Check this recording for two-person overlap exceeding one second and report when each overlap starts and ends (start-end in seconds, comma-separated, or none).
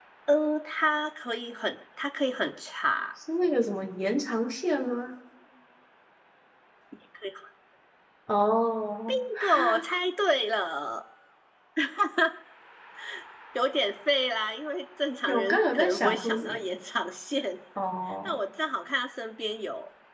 15.3-16.6